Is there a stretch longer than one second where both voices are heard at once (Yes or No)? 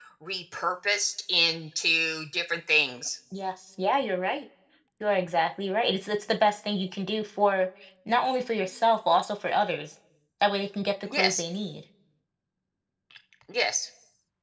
No